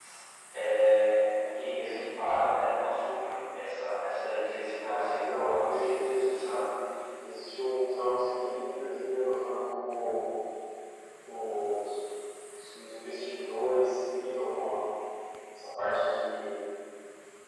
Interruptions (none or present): present